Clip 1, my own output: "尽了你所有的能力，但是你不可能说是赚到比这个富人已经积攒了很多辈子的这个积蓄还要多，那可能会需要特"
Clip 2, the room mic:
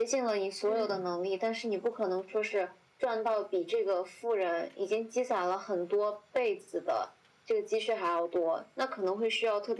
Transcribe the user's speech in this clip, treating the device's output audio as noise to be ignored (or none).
嗯，